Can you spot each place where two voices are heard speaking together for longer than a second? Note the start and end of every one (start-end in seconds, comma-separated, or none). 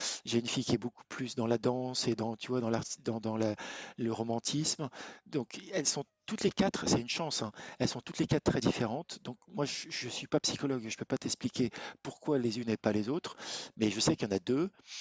none